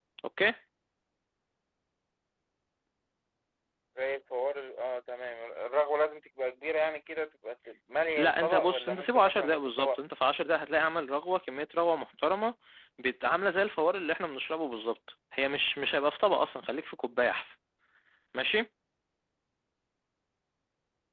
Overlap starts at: 8.2 s

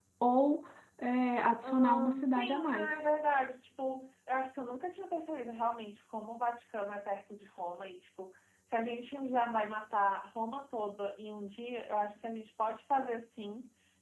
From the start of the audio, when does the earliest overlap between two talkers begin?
1.6 s

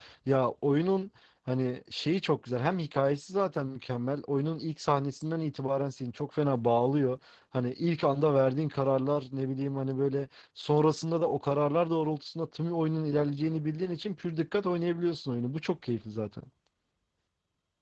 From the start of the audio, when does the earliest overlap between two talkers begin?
none

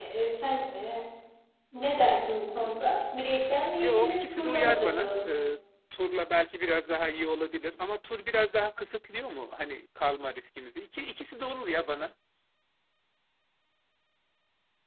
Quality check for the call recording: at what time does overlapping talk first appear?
3.8 s

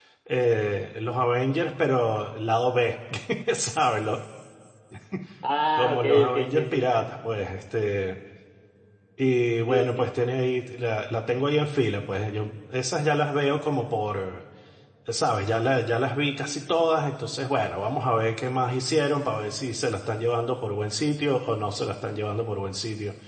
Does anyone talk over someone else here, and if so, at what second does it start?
5.8 s

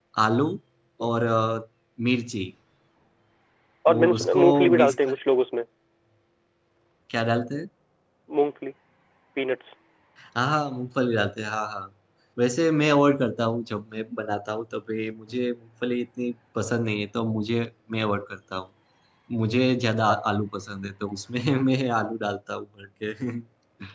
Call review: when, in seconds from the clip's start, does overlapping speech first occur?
3.9 s

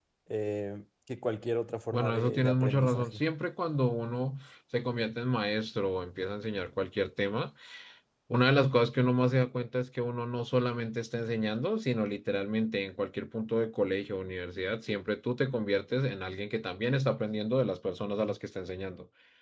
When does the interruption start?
1.9 s

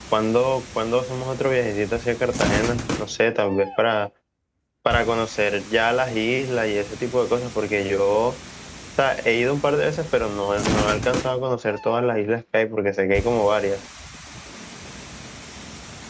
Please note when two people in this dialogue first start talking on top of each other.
none

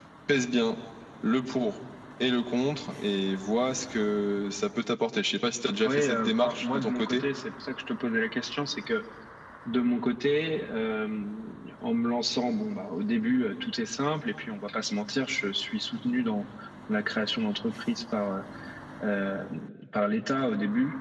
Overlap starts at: 5.8 s

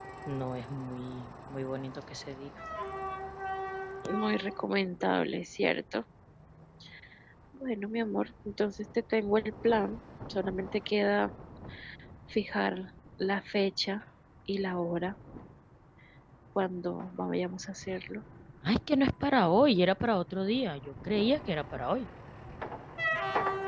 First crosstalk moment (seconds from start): none

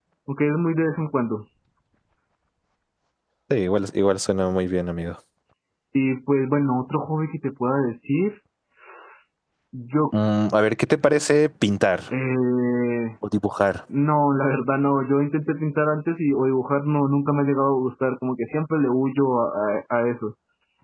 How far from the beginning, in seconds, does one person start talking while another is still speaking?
none

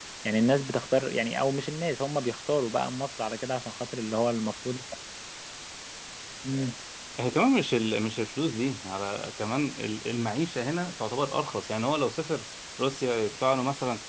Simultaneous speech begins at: none

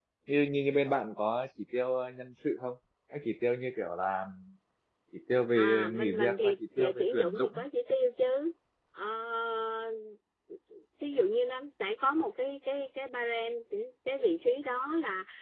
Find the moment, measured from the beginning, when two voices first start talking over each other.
5.5 s

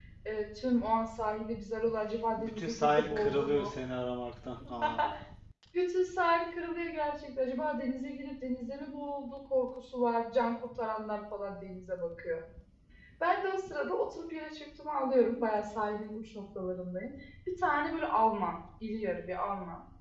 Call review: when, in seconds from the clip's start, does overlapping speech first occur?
2.4 s

